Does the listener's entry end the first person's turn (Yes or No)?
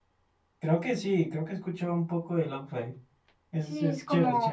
Yes